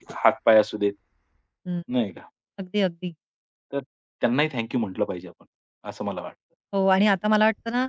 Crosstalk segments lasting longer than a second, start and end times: none

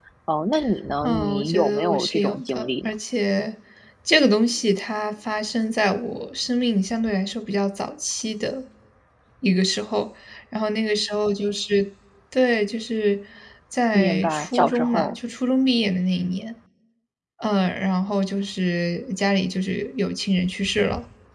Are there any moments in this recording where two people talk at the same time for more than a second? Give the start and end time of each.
1.0-2.9, 13.9-15.1

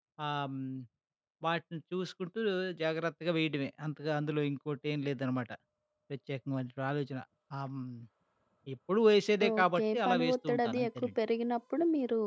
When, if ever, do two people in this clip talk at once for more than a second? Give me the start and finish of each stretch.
9.6-11.1

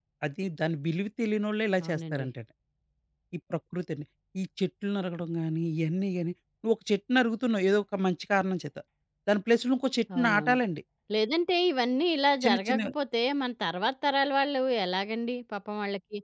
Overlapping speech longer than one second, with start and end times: none

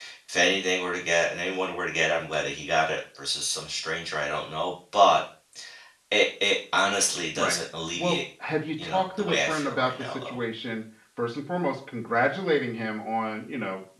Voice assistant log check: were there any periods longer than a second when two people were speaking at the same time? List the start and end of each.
8.8-10.4

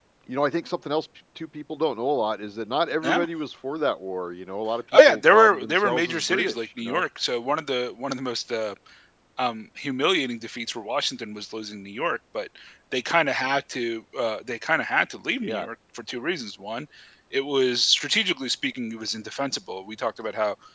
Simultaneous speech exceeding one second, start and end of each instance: 5.1-7.0

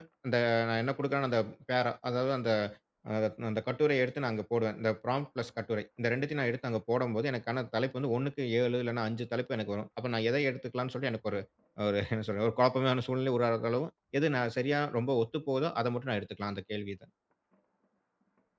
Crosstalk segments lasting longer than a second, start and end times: none

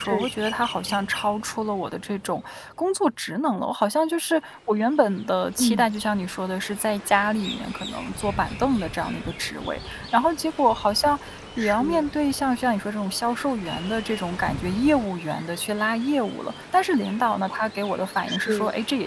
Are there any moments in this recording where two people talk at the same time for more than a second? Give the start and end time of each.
none

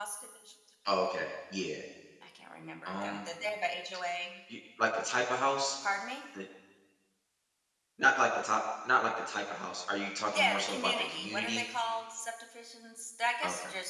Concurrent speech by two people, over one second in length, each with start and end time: 10.3-11.6

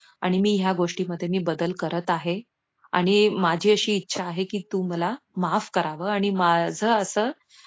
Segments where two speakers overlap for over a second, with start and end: none

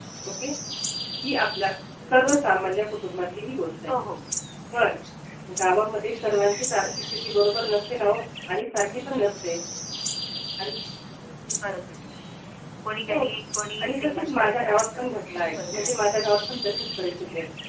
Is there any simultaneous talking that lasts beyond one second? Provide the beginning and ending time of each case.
13.8-15.1

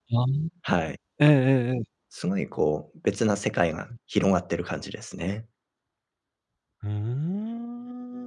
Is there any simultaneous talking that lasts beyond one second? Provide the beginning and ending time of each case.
none

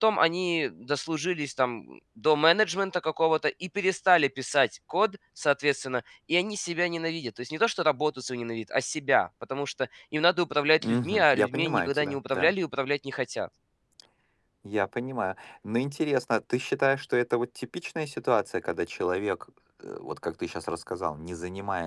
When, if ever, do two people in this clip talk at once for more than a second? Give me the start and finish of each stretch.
10.8-12.5

